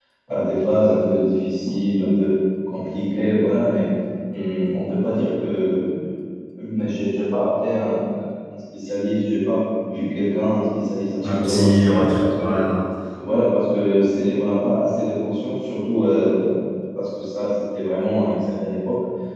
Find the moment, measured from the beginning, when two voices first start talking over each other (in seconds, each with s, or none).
11.2 s